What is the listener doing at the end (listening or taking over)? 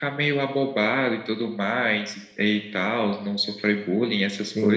taking over